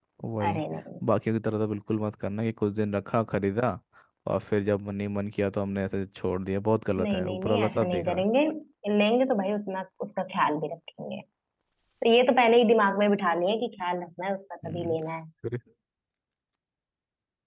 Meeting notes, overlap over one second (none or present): present